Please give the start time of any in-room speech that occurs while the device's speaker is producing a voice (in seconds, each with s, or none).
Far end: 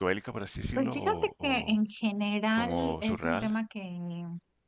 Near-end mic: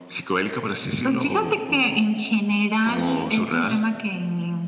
none